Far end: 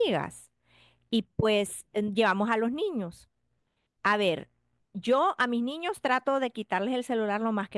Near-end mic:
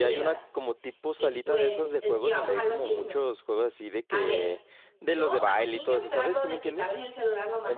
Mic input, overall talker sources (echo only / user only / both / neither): both